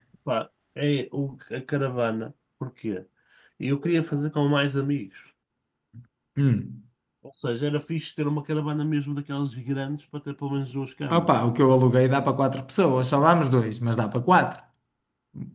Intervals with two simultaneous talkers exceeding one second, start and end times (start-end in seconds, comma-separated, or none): none